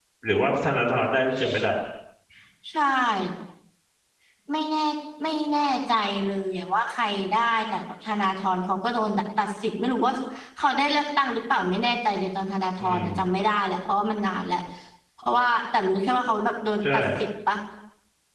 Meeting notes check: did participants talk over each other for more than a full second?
No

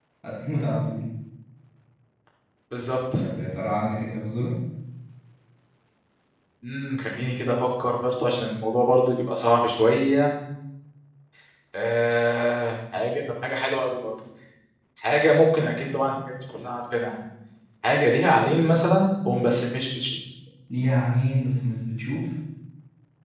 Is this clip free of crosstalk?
Yes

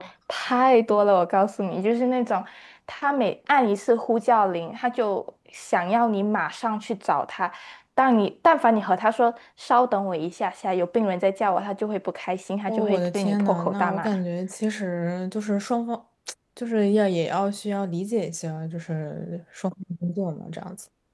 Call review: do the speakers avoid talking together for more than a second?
No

